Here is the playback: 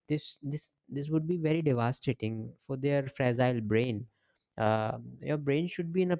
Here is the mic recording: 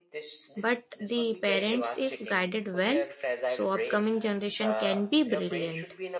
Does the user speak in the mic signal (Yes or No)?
Yes